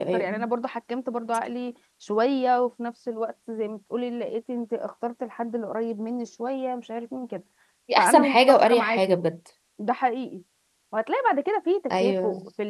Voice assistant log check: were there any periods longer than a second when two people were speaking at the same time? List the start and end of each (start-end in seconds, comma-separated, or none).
8.0-9.2